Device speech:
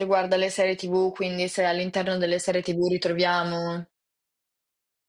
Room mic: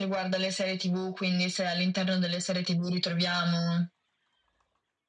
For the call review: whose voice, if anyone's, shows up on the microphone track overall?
echo only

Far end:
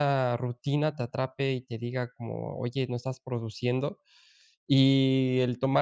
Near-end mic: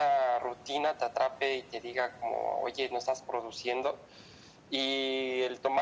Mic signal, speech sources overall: echo only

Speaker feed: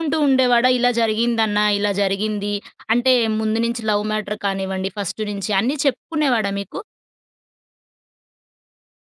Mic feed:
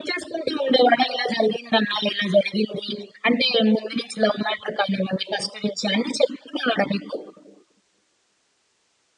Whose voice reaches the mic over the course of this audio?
echo only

